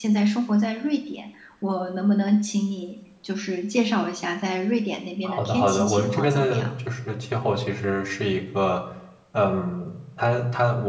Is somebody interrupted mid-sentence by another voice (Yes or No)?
Yes